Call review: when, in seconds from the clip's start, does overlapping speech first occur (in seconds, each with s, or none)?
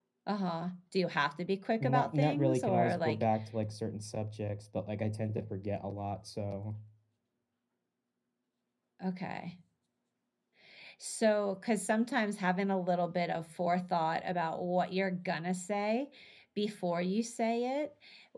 1.8 s